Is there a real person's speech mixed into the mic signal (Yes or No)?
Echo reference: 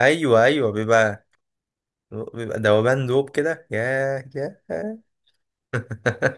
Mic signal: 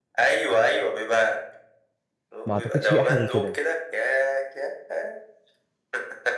Yes